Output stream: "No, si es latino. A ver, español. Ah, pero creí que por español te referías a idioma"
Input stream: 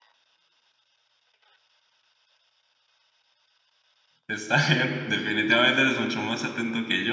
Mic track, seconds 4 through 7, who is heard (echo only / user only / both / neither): user only